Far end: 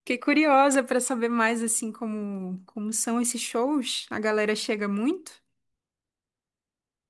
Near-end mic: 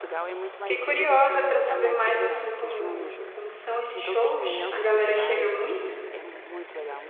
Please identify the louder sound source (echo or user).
echo